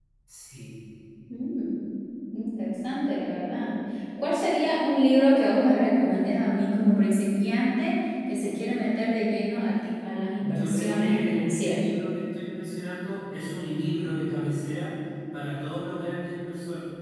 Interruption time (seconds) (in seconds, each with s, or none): 10.4 s